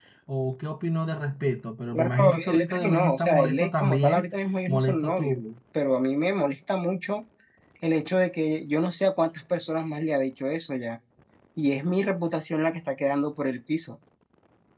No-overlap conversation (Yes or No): No